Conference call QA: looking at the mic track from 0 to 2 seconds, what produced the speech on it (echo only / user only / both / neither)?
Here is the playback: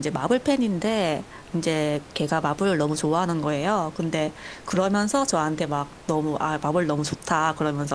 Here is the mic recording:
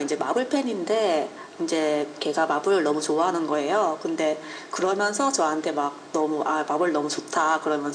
echo only